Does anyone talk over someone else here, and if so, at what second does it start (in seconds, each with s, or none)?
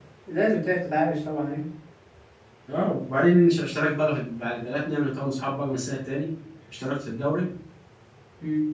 none